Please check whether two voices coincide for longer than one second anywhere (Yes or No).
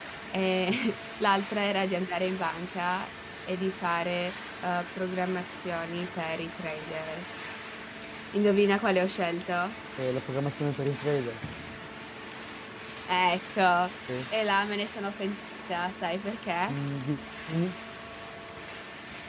No